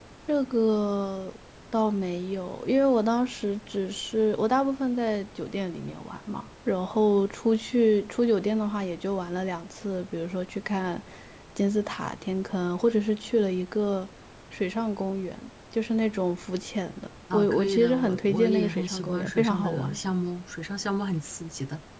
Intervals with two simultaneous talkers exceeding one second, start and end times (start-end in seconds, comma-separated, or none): 17.3-20.0